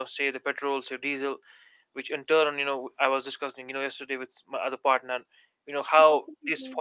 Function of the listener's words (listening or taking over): listening